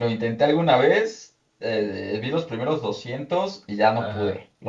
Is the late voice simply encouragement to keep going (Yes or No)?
No